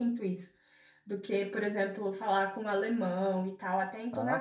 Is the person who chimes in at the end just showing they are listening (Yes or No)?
No